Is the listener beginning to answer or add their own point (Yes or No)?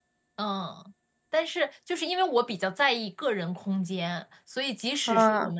No